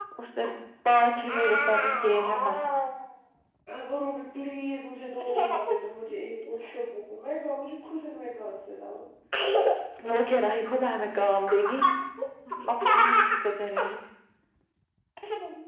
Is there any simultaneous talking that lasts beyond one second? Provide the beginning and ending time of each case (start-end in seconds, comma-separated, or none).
none